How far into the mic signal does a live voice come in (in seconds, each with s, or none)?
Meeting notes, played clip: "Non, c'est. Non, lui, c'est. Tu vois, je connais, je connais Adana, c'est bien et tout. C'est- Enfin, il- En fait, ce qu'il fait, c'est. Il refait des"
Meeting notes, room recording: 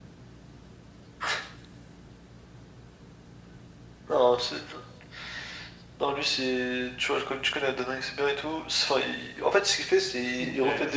9.9 s